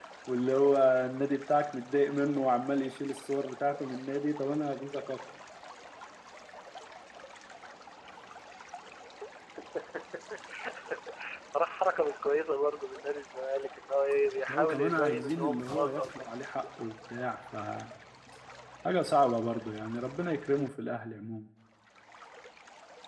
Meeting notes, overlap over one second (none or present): present